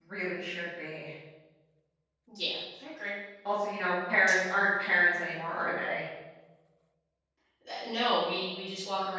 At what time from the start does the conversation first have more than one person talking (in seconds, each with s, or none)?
none